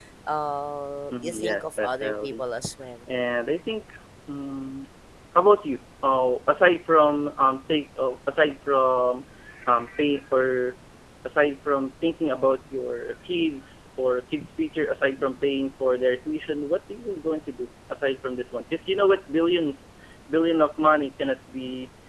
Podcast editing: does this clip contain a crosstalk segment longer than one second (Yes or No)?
Yes